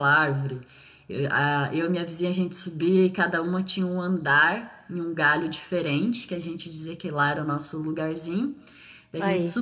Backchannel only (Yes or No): Yes